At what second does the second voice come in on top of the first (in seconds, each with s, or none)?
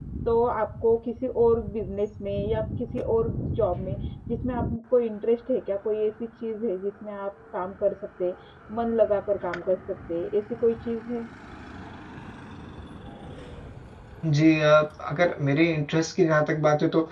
none